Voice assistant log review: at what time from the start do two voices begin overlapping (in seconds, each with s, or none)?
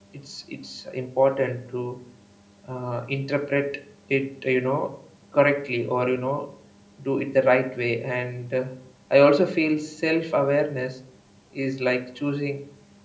none